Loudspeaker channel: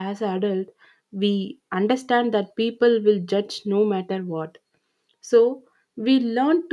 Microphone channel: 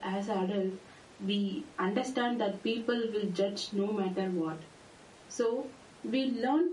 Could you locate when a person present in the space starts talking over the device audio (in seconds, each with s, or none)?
none